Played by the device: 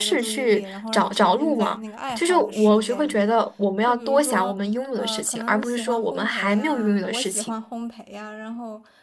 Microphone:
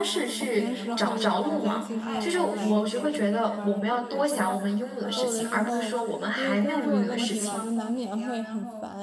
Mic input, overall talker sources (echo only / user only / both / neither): both